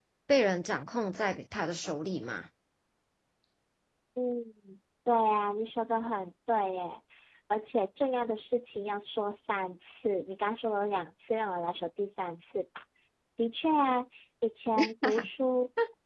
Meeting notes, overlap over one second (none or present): none